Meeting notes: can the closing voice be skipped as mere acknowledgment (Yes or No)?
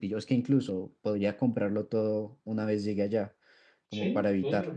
No